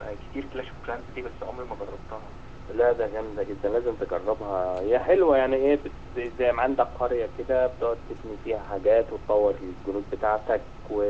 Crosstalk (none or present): none